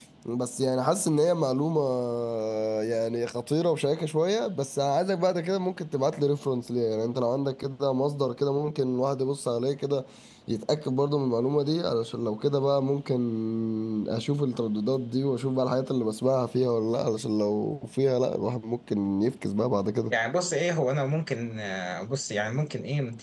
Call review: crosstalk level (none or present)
none